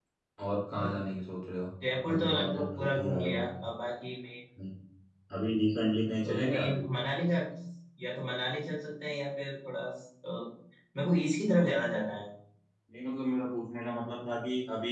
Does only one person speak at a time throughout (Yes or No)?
No